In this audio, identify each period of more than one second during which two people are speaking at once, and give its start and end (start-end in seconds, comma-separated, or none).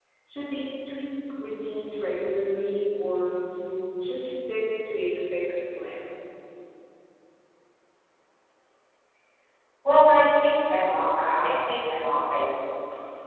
none